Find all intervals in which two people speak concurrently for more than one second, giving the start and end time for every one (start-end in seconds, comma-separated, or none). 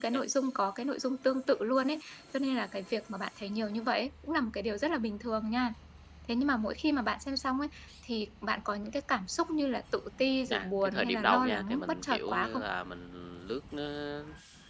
10.5-12.6